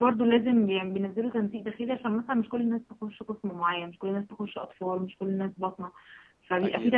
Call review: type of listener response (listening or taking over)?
listening